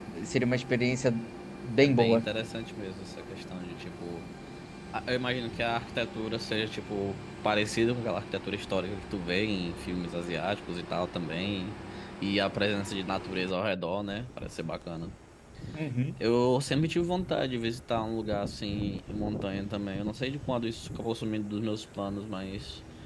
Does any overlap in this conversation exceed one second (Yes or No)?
No